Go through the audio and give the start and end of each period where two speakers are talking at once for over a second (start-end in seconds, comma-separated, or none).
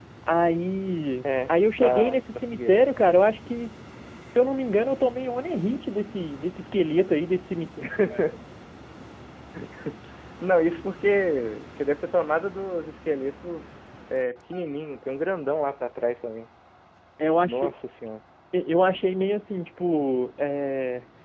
1.2-2.8